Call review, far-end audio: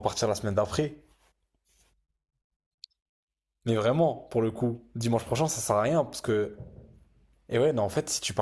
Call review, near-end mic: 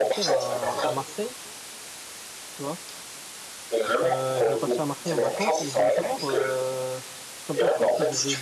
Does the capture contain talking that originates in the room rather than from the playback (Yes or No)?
Yes